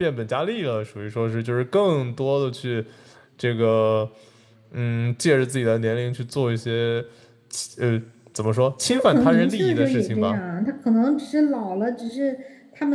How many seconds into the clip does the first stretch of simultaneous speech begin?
8.8 s

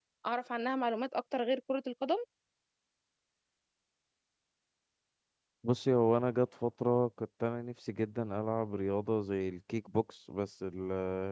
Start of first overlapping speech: none

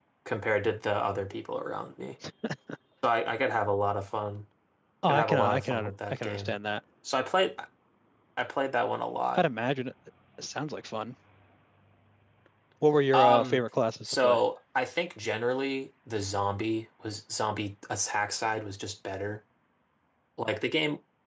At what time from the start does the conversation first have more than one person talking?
5.1 s

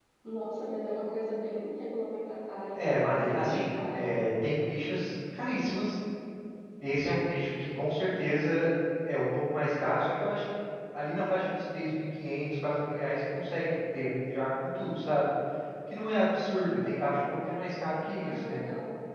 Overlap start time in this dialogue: 2.7 s

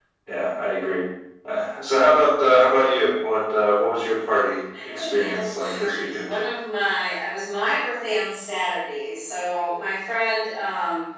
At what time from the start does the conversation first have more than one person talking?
4.7 s

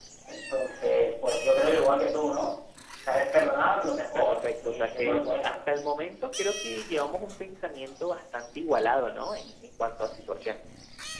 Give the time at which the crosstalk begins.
4.1 s

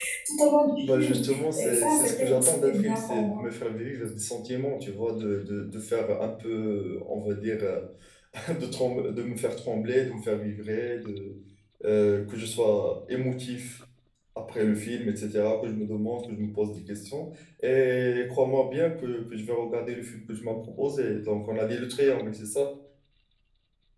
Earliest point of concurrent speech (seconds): 0.8 s

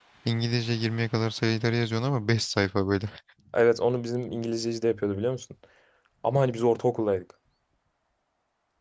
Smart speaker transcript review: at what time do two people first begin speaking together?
none

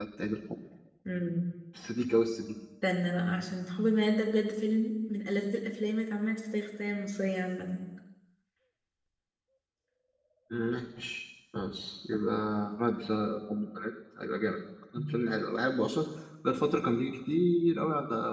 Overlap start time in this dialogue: none

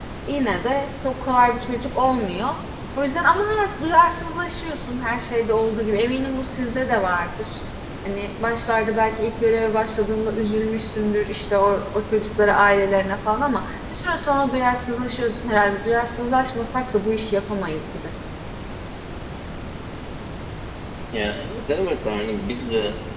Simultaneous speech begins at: none

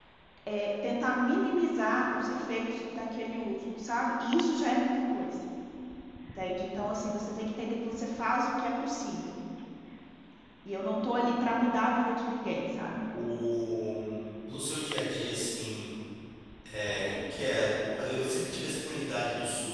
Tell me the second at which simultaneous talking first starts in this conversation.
none

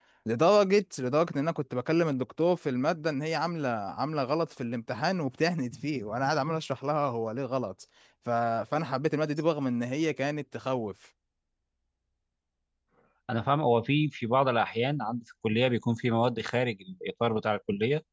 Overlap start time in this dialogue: none

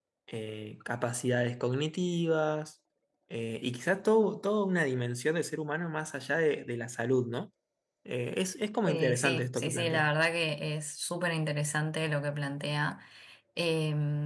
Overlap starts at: 8.8 s

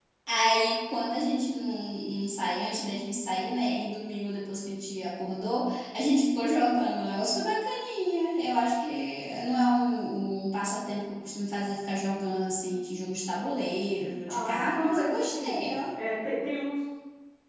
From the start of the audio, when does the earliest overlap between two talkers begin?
14.3 s

